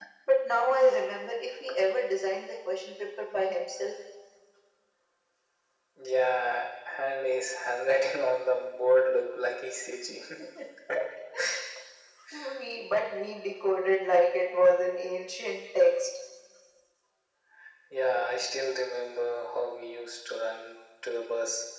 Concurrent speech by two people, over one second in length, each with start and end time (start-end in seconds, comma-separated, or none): none